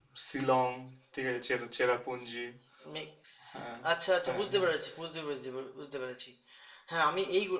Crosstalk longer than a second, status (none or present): none